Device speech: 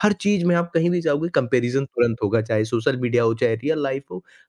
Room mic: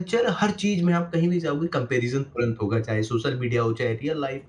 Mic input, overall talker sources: echo only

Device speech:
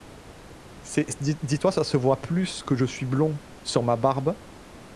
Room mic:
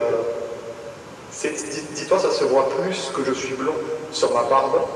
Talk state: echo only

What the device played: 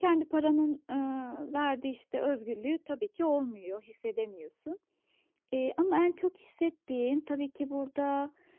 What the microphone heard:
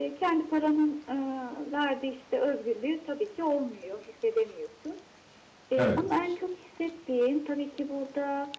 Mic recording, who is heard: both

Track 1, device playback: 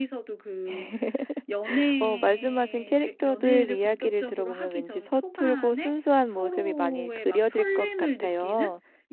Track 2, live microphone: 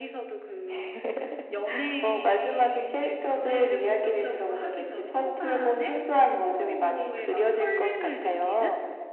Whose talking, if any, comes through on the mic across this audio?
echo only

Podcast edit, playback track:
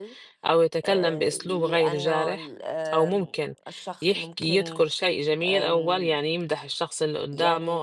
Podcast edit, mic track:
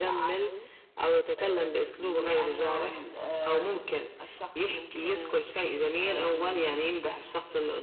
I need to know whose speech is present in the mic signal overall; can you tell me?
echo only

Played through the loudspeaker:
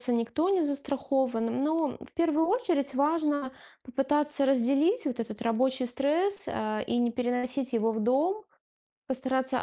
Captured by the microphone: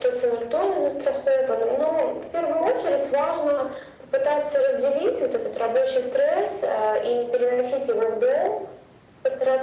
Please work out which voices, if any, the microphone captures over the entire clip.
echo only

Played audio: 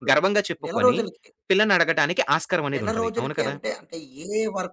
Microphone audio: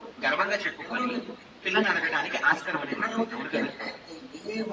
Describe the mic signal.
echo only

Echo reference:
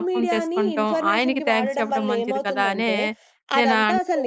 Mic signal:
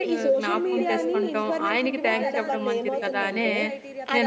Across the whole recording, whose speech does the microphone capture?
both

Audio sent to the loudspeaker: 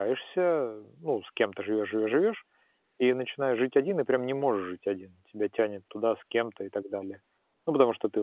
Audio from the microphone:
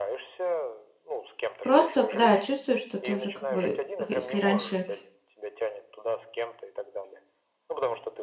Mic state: both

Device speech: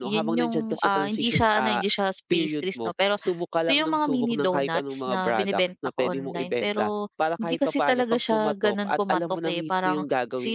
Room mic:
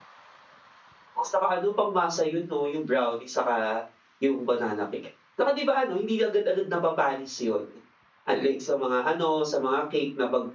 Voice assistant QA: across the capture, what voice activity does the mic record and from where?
user only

